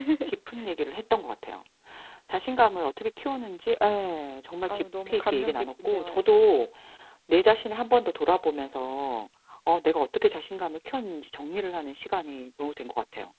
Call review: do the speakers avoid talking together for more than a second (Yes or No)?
No